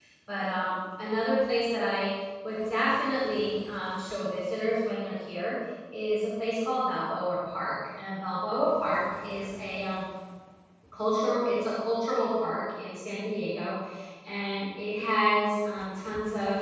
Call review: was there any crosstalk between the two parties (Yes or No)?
No